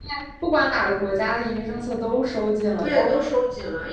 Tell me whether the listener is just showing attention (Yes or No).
No